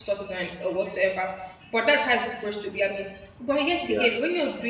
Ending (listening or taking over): listening